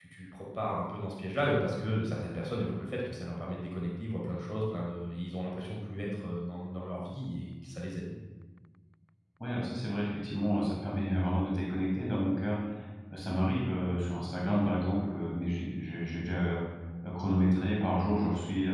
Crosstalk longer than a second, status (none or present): none